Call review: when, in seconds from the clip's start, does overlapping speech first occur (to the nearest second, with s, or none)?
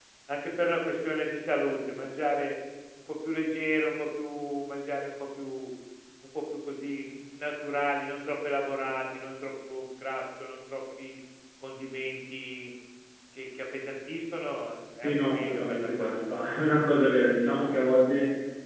15 s